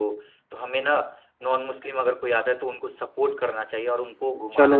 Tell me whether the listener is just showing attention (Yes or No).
No